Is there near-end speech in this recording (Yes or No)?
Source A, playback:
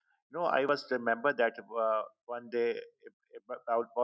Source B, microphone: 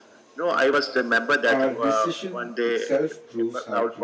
Yes